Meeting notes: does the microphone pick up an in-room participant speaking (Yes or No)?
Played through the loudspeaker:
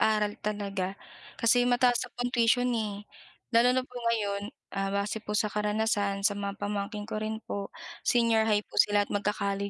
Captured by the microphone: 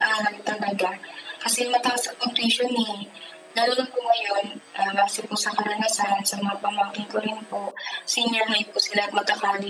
No